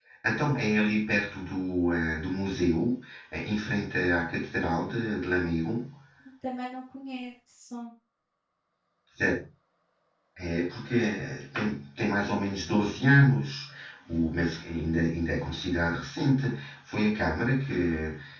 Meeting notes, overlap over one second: none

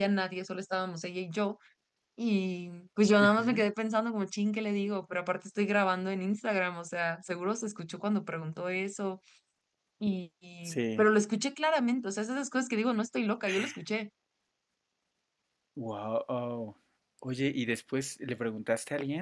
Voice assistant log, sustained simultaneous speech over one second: none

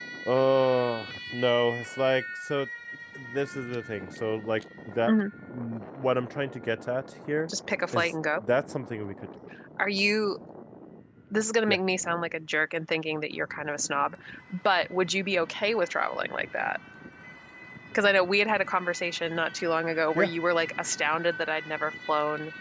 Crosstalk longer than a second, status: none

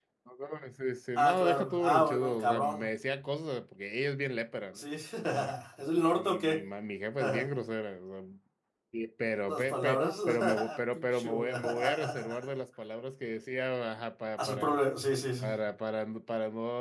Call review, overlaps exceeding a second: present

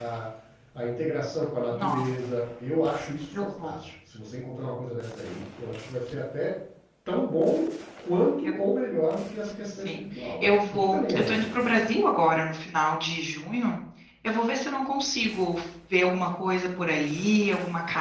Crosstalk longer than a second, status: present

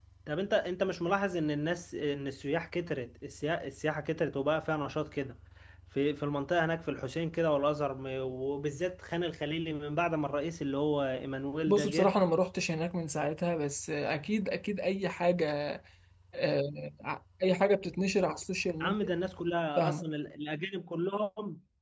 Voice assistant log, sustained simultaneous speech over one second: none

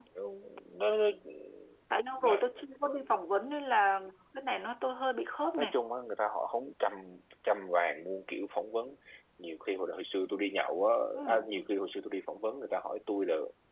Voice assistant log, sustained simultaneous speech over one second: none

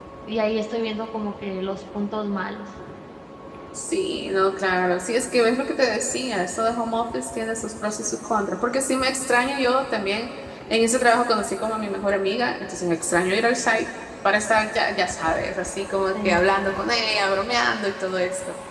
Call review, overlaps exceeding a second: none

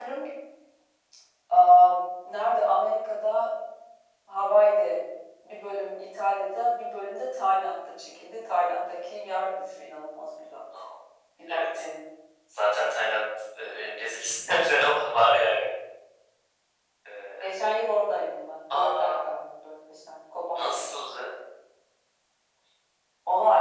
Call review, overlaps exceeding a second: none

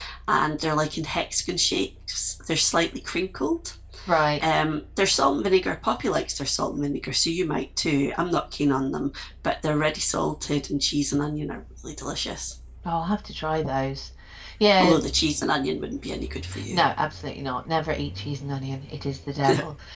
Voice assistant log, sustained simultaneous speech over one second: none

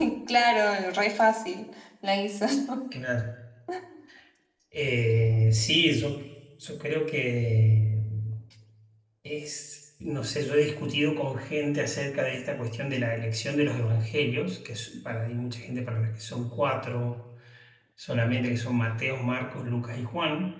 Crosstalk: none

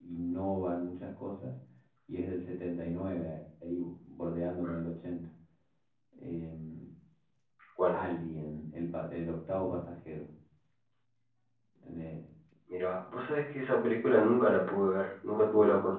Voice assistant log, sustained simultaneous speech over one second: none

